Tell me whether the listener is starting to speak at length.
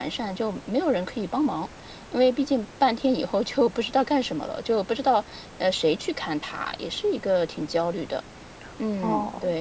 Yes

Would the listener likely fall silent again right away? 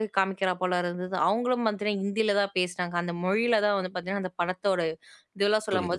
Yes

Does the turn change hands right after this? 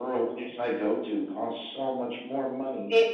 No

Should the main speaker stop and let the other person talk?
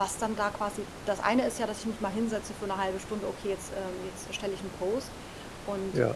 No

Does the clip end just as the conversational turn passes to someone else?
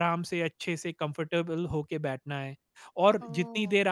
Yes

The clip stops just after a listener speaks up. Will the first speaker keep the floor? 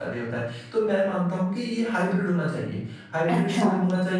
Yes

